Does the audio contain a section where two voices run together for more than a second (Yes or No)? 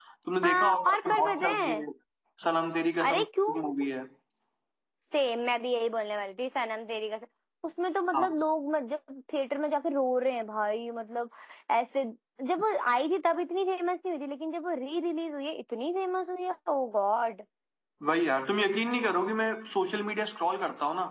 Yes